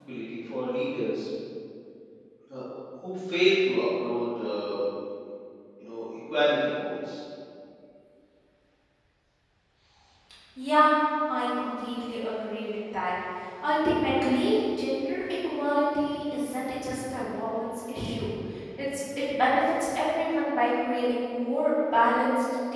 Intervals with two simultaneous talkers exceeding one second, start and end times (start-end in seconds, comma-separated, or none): none